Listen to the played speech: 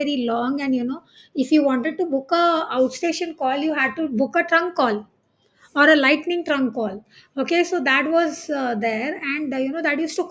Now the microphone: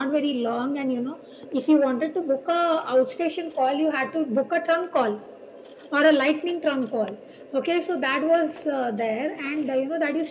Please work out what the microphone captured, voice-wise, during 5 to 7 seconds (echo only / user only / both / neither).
echo only